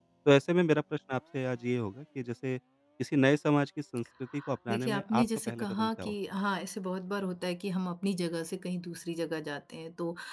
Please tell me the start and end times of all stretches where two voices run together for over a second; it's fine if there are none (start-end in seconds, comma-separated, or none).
4.7-6.1